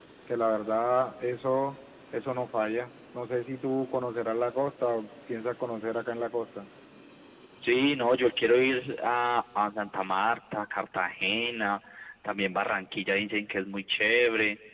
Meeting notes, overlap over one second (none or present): none